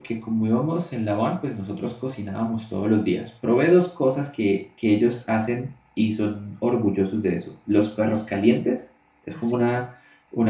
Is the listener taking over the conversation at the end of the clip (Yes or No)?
No